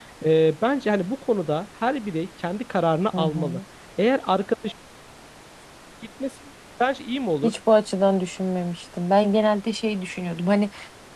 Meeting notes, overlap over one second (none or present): none